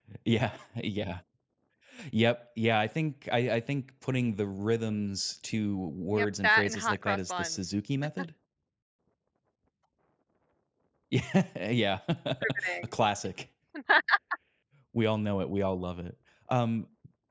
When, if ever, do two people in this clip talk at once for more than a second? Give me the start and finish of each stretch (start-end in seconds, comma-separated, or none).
6.1-7.5